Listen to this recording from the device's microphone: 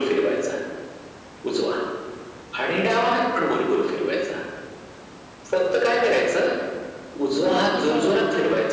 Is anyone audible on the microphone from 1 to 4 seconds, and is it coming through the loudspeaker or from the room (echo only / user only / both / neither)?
echo only